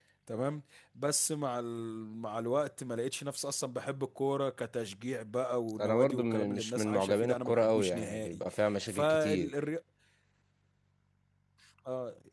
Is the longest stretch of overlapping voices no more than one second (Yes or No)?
No